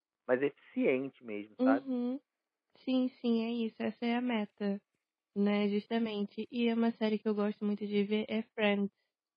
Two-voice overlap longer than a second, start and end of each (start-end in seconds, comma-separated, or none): none